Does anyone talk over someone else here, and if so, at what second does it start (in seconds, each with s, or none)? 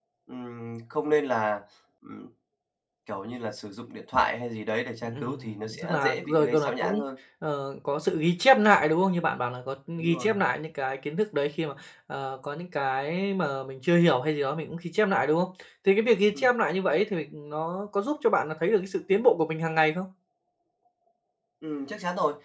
5.0 s